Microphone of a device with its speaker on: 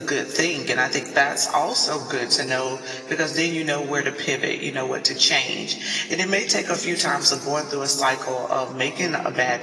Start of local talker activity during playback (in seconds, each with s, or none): none